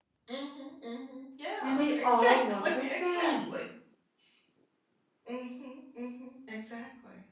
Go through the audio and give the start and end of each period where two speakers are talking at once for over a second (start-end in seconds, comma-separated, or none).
1.6-3.5